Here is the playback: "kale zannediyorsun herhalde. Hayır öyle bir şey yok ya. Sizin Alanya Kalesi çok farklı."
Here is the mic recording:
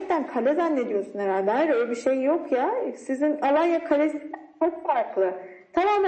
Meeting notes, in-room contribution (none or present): none